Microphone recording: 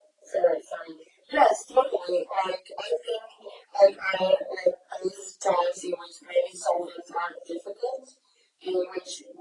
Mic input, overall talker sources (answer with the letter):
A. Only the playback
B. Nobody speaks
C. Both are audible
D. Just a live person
A